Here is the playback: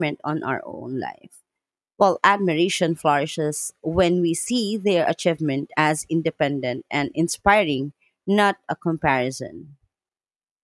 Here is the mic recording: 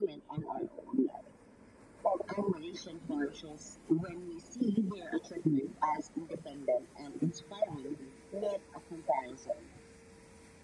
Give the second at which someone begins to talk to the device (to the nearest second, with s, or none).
none